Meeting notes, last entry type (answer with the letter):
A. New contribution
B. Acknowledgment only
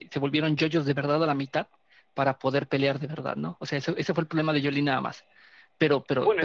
A